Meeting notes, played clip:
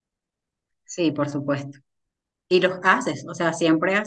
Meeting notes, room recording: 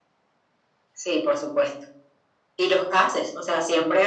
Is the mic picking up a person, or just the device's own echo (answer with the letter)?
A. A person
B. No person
B